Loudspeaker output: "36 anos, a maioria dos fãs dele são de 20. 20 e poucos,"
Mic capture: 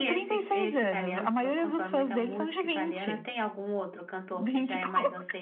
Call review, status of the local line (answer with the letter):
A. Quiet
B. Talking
B